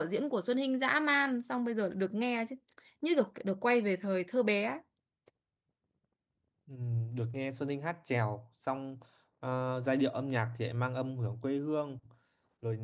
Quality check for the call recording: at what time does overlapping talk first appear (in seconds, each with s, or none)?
none